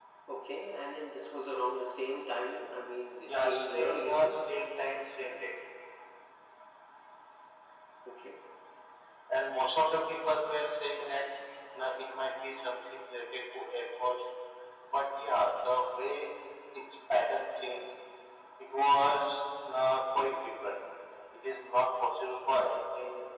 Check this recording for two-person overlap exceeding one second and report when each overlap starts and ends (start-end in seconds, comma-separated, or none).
3.3-4.5